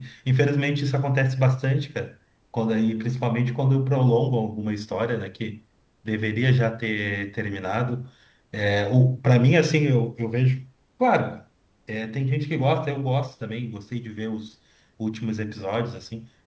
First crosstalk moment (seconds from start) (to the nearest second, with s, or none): none